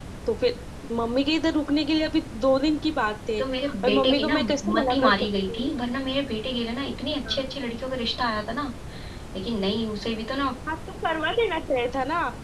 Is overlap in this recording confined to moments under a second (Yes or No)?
No